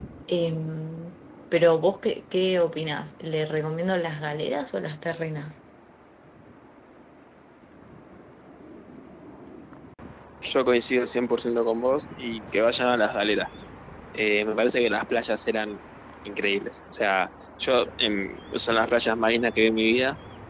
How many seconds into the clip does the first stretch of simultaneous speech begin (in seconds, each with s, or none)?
none